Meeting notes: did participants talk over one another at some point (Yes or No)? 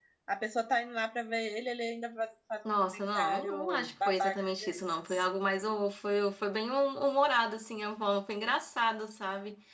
Yes